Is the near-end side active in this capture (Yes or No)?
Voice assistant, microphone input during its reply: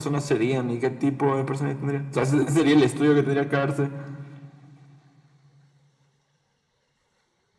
No